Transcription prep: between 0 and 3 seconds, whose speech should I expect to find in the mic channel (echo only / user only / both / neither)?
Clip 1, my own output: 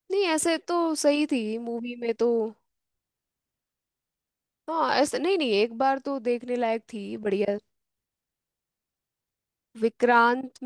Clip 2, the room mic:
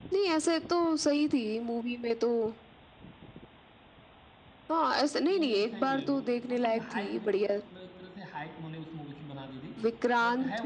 echo only